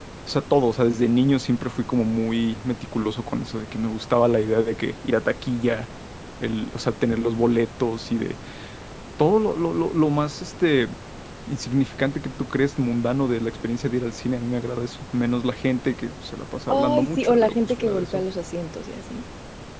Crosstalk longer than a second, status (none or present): present